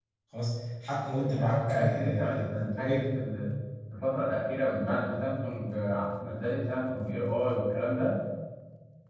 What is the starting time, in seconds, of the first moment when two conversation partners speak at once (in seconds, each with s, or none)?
1.2 s